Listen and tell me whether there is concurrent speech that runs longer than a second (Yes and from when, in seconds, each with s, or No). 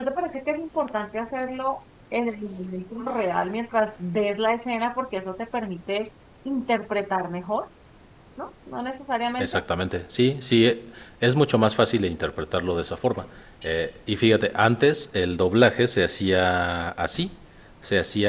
No